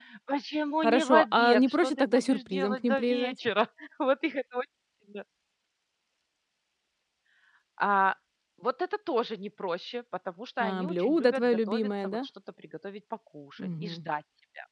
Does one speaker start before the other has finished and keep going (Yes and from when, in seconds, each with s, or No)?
Yes, from 0.8 s